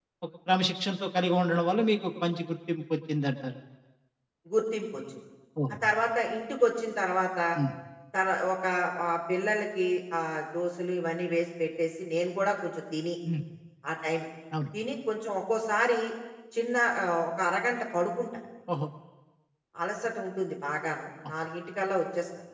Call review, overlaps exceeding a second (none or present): none